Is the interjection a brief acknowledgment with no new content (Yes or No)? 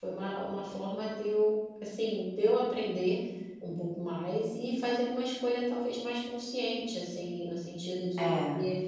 Yes